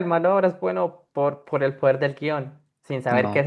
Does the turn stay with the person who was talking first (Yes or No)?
Yes